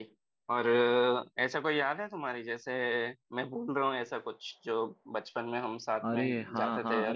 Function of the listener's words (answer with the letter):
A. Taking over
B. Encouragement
A